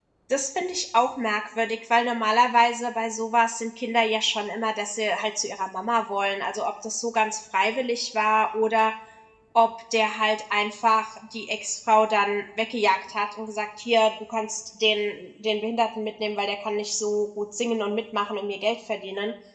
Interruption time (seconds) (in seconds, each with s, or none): none